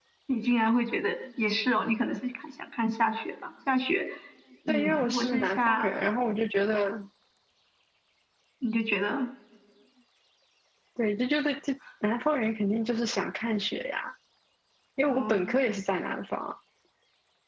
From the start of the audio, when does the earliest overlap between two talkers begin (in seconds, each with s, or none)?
4.7 s